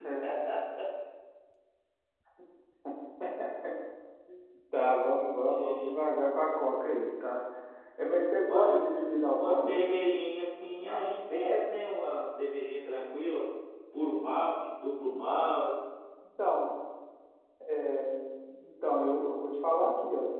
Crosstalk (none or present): present